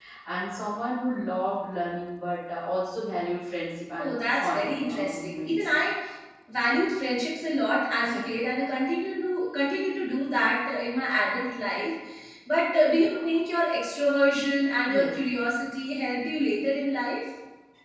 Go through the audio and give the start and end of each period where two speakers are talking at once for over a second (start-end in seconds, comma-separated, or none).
4.0-5.7